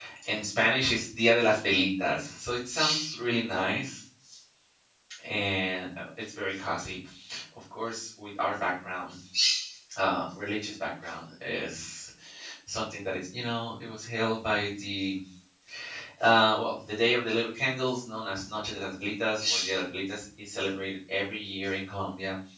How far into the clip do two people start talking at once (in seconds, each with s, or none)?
none